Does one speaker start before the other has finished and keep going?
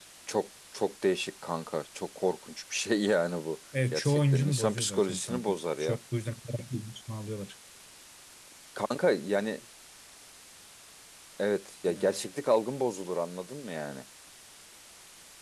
Yes, from 3.9 s

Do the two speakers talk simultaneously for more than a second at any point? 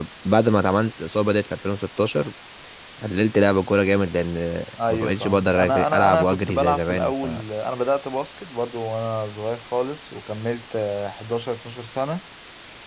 Yes, from 4.8 s

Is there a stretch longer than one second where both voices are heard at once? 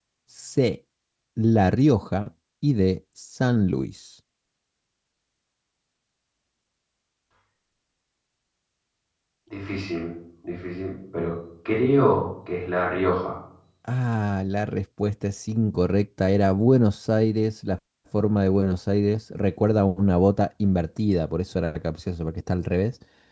No

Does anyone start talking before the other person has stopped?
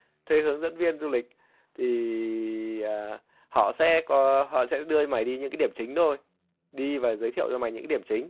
No

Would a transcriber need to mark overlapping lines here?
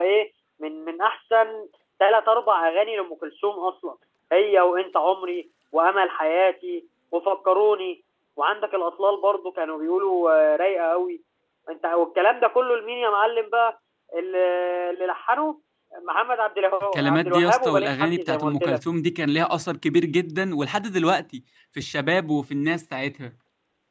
Yes, from 16.9 s

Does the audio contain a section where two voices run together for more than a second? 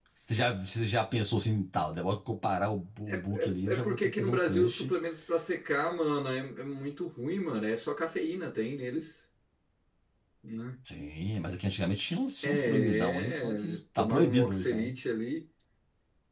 Yes, from 3.1 s

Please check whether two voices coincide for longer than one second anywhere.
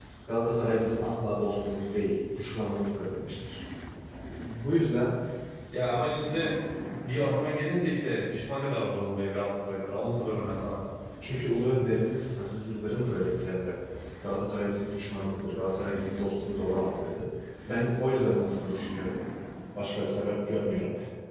No

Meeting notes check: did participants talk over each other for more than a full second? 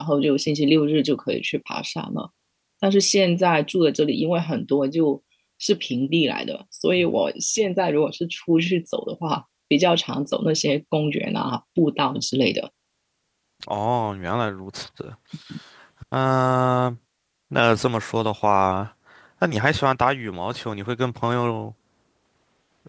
No

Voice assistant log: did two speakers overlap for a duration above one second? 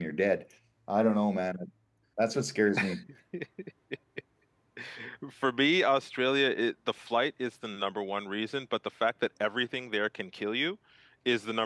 No

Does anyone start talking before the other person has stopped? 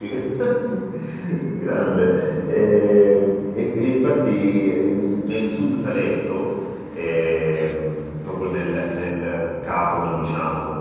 No

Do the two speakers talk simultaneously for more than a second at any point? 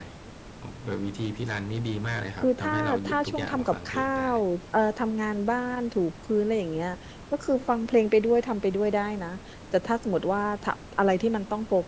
Yes, from 2.4 s

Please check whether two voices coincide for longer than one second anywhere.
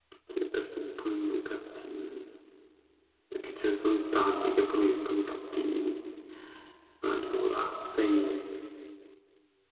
No

